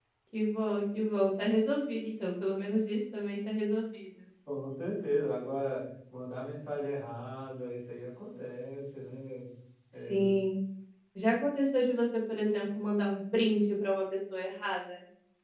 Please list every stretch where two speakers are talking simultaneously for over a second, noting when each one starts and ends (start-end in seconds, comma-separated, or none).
none